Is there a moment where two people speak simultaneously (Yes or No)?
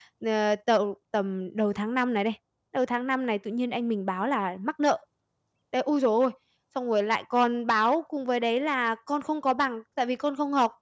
No